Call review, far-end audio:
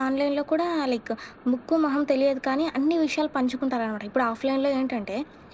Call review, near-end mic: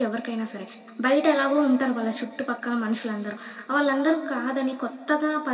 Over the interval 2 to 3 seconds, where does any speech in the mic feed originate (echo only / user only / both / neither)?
user only